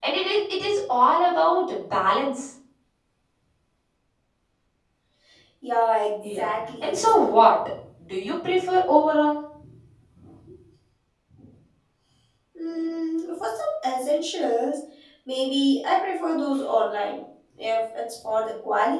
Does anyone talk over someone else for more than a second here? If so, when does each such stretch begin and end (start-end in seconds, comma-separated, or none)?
6.2-7.5